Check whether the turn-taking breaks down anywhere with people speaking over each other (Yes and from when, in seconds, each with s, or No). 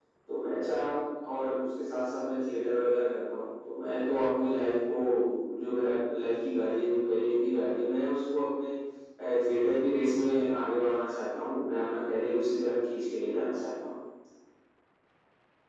No